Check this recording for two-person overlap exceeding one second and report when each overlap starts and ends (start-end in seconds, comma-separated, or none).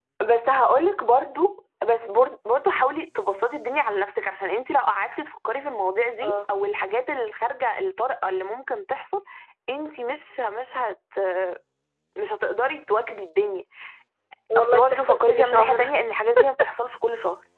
14.6-15.9